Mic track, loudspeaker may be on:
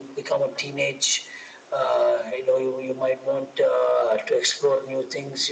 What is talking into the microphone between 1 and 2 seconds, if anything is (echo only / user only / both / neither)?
echo only